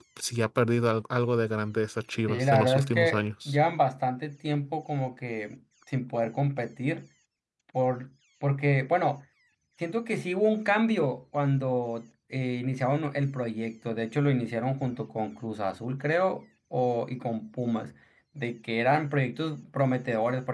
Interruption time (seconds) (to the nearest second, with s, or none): 2 s